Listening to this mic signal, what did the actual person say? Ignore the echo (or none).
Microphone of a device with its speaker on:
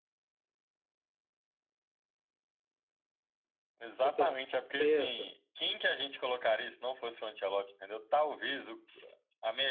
Então, tem essa.